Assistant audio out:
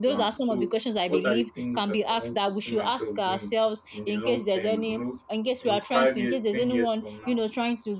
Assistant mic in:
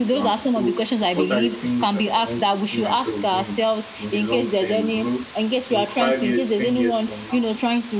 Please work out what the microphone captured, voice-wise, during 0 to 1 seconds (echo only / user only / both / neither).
echo only